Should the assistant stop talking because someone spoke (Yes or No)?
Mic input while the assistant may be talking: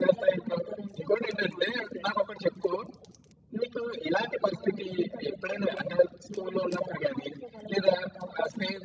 No